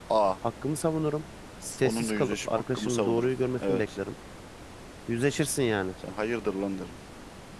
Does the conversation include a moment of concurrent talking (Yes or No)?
Yes